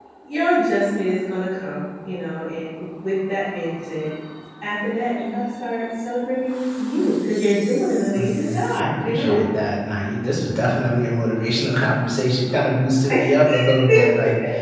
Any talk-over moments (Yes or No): Yes